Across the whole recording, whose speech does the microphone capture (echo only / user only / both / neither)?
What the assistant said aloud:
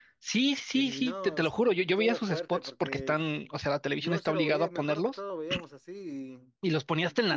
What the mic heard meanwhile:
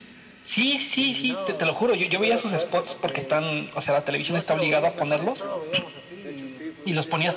both